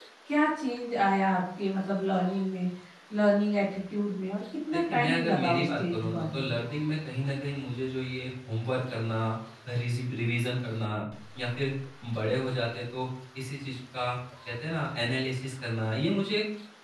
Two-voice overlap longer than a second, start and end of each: 4.7-6.5

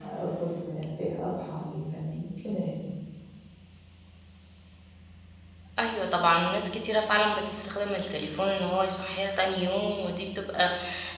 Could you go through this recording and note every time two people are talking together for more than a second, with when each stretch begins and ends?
none

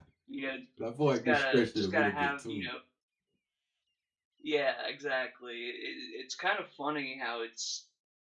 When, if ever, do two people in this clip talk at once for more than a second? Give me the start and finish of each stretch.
1.0-2.7

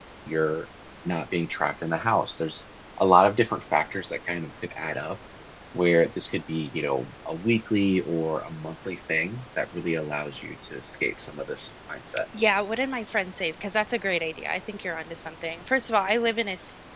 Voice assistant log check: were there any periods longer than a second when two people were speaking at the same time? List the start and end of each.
none

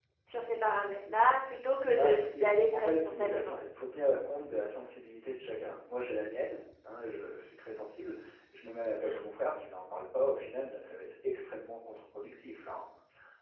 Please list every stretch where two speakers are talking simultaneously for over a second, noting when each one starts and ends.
1.9-3.6

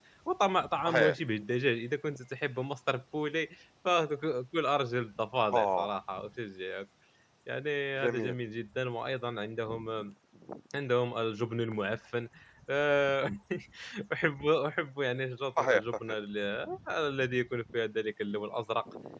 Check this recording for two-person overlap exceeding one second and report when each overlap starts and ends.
none

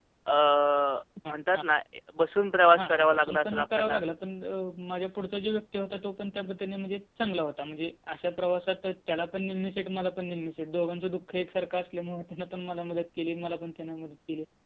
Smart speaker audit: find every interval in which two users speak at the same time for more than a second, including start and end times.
2.8-4.0

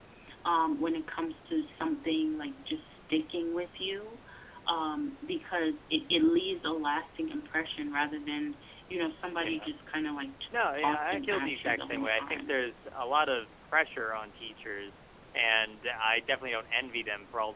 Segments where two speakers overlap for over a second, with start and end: 10.8-12.5

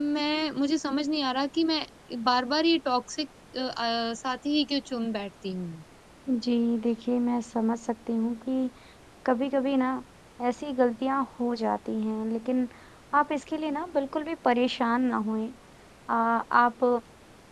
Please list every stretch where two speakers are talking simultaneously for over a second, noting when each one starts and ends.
none

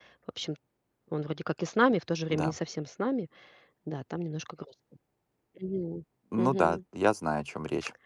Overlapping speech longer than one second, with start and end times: none

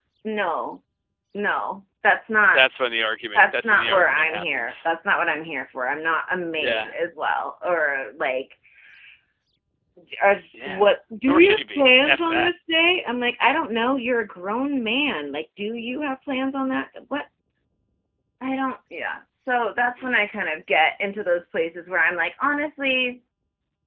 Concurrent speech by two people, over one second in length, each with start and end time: 3.4-4.9, 11.2-12.5

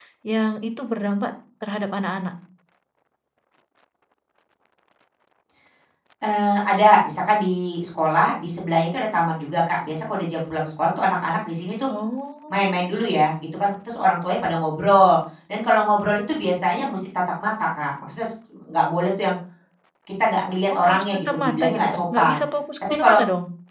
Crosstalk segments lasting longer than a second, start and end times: 20.8-22.4

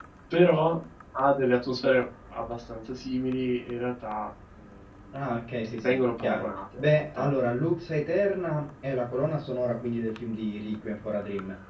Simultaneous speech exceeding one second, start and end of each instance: 5.8-7.3

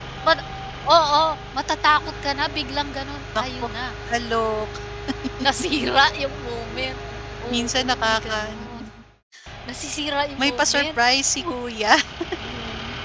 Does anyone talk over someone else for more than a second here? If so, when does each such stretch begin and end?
7.5-8.8

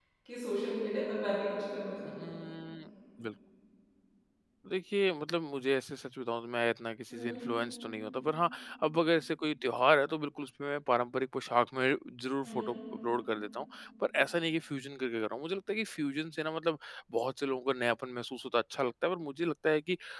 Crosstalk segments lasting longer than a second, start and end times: none

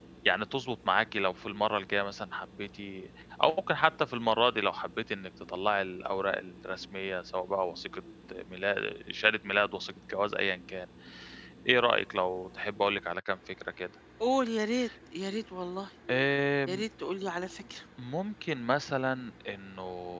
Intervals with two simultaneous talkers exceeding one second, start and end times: none

